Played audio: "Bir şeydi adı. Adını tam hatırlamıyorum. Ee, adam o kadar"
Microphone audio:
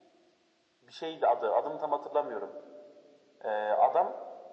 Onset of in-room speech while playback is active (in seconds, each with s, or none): none